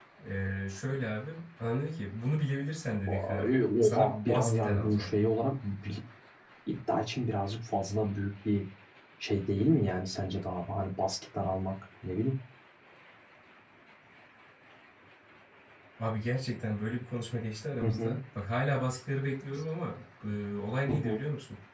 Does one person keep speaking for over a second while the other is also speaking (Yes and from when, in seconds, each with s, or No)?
Yes, from 3.0 s